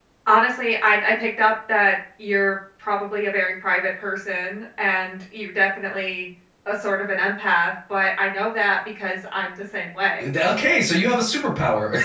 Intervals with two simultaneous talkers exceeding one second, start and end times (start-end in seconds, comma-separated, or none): none